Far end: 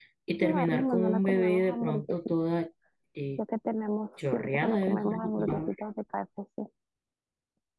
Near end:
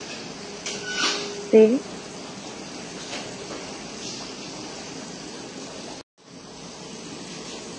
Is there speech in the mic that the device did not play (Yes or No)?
Yes